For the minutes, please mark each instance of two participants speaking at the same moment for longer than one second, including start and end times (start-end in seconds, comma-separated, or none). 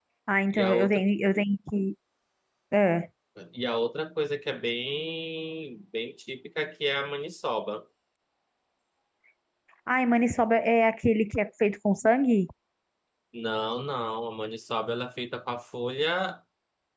none